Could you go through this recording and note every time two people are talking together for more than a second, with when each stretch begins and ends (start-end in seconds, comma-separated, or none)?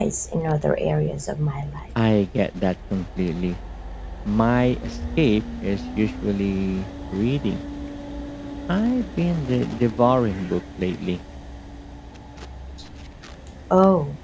none